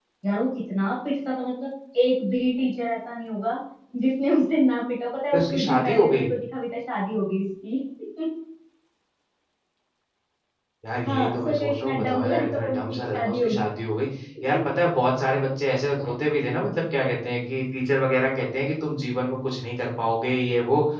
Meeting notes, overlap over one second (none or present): present